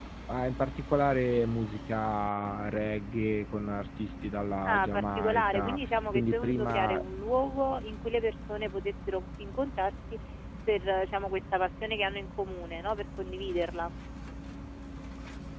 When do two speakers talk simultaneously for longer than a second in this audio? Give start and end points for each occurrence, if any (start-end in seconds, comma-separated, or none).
4.7-7.0